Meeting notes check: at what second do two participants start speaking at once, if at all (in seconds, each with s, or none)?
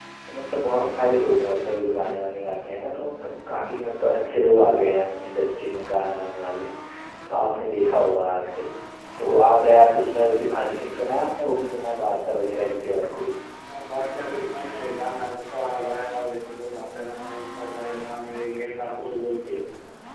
none